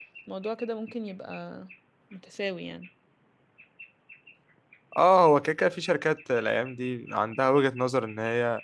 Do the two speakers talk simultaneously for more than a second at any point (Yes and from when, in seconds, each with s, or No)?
No